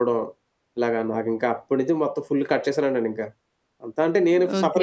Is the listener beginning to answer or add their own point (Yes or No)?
Yes